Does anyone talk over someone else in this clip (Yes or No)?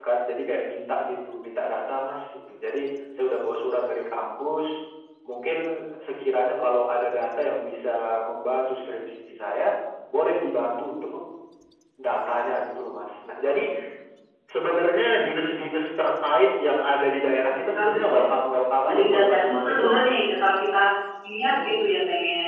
Yes